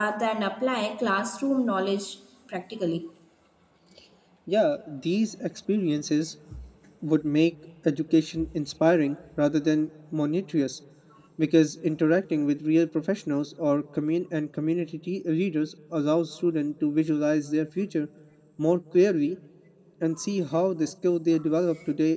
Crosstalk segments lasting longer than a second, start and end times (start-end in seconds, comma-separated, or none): none